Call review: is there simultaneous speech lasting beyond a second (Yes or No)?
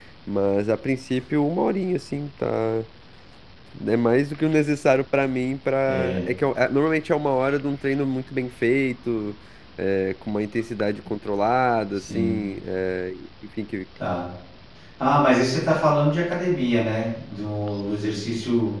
No